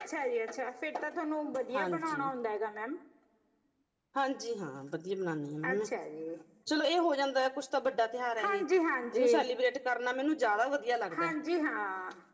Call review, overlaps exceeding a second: none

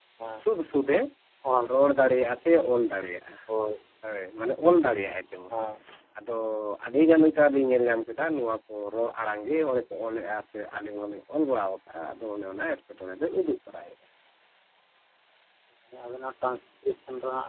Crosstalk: none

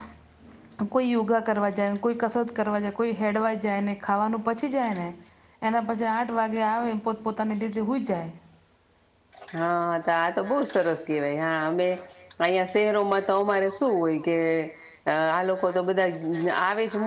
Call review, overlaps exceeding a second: none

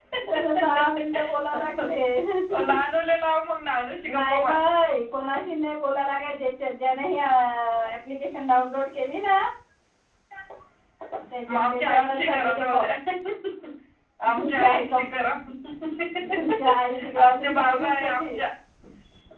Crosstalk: present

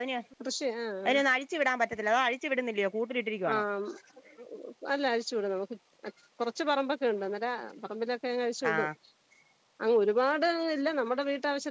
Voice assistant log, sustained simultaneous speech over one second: none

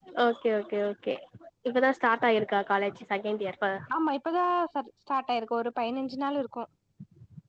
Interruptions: none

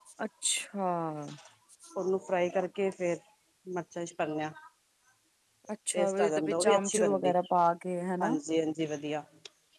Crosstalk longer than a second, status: present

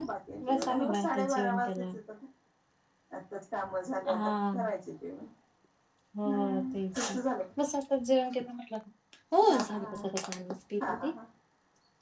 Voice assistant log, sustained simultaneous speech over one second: present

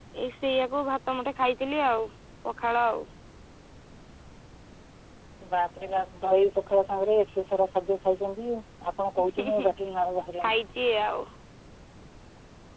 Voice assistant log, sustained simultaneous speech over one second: none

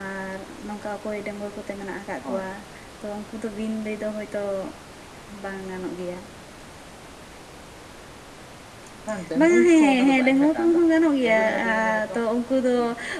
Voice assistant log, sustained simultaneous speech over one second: present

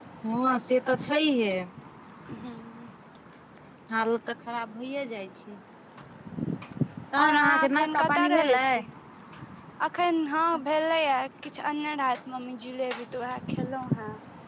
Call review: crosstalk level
present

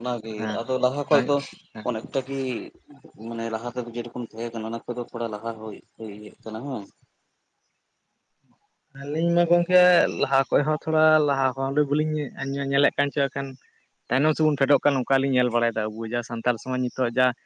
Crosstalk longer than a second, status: none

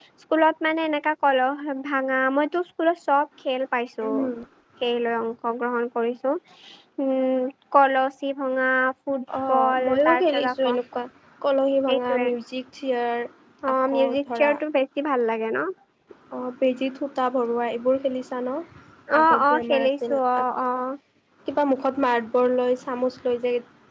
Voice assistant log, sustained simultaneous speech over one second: present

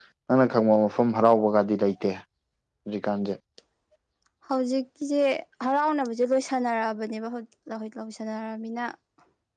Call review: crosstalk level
none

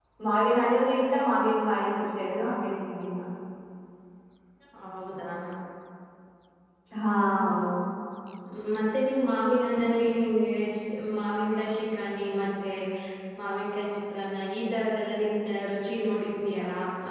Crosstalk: none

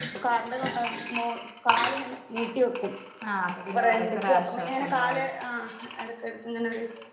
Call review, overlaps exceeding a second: present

